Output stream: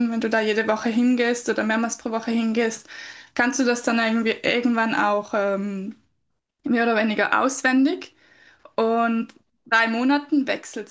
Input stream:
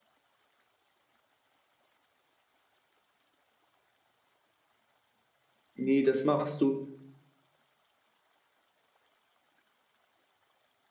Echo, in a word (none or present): none